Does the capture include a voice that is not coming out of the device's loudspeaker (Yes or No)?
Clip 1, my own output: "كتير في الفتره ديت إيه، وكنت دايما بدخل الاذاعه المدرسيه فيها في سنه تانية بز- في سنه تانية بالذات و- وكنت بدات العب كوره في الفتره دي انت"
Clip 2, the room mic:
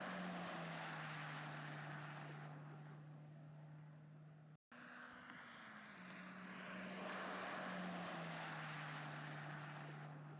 No